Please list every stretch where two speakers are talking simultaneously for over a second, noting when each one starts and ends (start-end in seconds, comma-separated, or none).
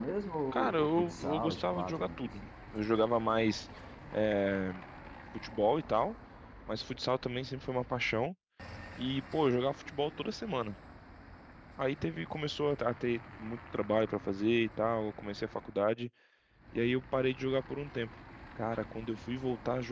0.5-2.3